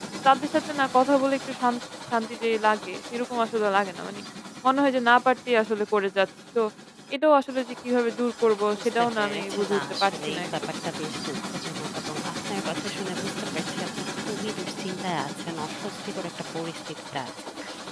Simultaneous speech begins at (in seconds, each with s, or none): 8.7 s